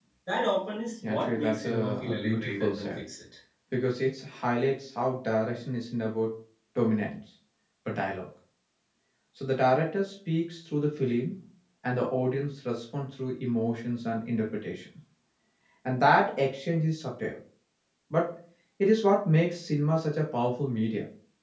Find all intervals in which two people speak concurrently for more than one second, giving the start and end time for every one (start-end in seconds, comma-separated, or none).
1.0-3.0